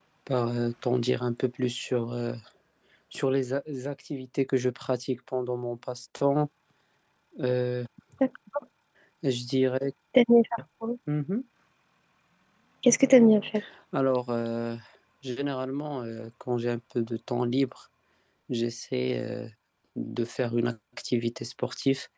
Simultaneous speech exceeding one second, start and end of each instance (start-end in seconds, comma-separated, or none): none